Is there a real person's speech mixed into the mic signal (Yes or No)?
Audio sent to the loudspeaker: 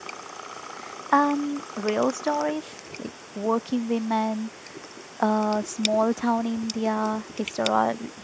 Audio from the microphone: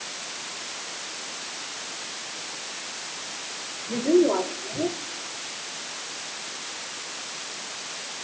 Yes